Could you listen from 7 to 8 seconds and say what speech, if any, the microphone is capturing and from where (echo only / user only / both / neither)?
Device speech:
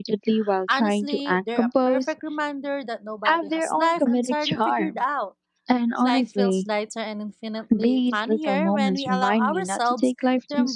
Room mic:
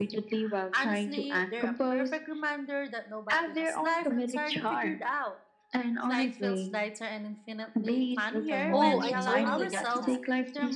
echo only